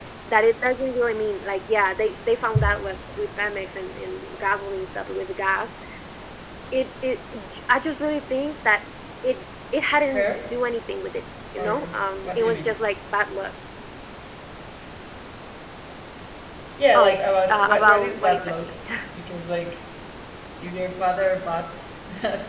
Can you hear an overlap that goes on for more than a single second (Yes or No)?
Yes